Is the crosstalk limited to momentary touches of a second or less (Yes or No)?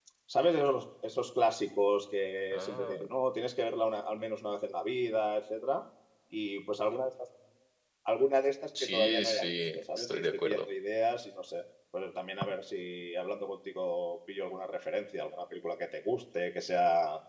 No